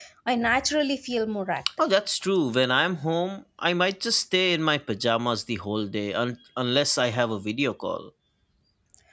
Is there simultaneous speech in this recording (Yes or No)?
No